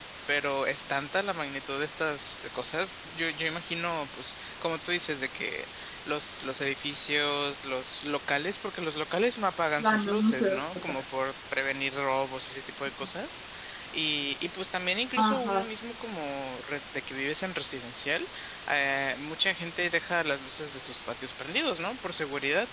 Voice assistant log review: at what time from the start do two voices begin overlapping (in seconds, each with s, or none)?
9.8 s